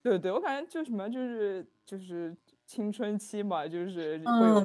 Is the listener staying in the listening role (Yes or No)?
No